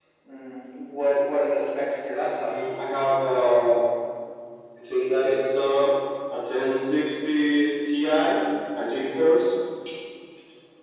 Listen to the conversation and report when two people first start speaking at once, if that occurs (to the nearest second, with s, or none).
none